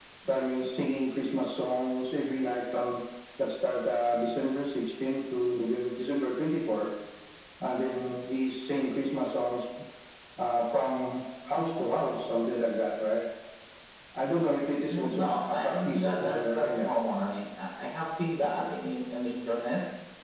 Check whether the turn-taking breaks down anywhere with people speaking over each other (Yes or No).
Yes